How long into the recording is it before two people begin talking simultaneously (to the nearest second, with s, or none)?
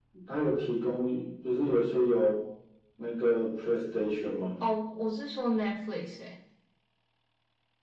none